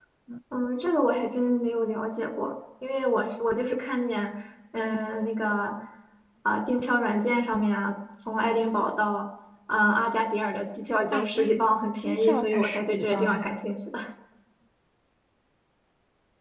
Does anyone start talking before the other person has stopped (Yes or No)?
Yes